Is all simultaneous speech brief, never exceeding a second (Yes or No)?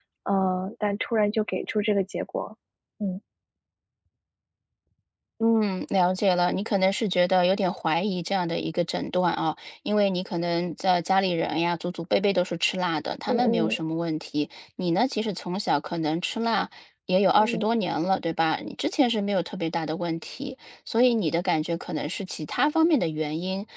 Yes